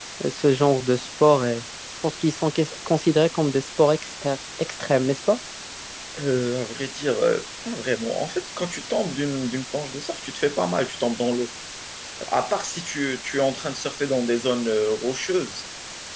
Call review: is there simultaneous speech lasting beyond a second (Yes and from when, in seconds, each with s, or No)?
No